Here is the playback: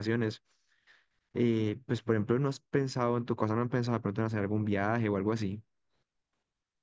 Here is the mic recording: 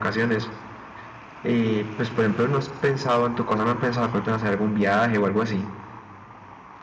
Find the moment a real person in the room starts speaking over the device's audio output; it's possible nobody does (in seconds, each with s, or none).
none